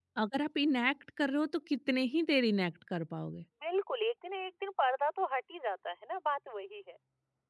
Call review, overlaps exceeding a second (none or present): none